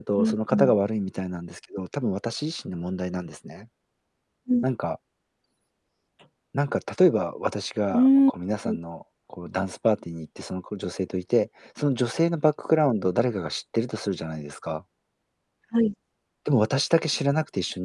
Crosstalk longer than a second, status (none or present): none